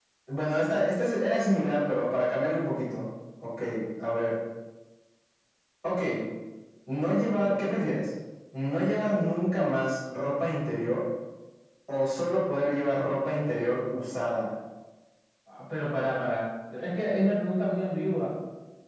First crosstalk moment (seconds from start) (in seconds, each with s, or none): none